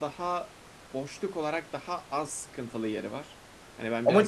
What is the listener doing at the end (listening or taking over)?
taking over